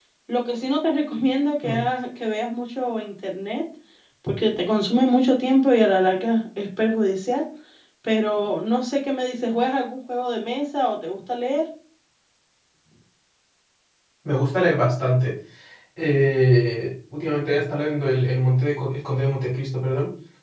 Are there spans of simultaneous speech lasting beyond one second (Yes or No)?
No